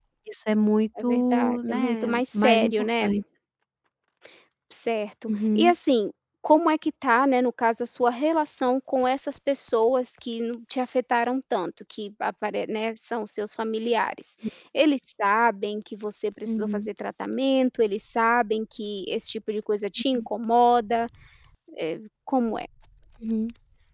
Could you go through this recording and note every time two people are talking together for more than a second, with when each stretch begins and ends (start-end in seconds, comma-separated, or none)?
1.0-3.1